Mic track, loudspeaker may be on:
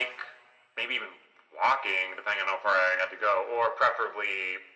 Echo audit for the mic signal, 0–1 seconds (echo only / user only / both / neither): echo only